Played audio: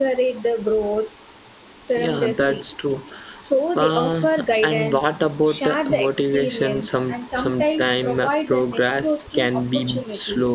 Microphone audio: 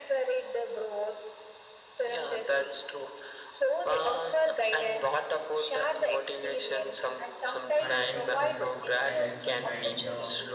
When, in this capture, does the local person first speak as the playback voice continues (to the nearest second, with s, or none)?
8 s